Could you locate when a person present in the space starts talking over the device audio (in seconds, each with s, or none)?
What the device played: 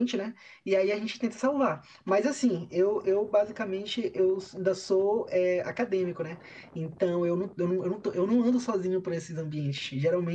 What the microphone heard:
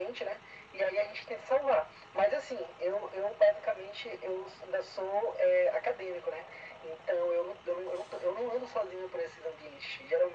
none